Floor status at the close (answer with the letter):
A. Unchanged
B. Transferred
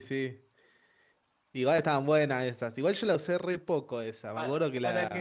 B